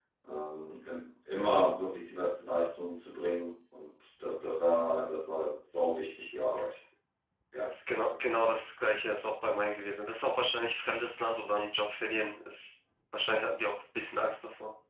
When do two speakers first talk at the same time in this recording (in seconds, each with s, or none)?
none